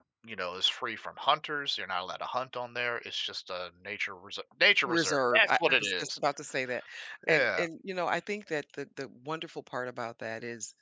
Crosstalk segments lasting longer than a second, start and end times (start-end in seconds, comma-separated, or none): 4.8-6.2